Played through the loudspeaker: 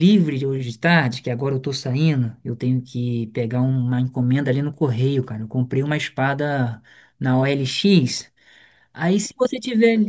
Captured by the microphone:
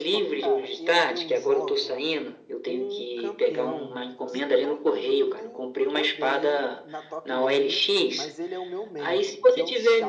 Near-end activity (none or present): present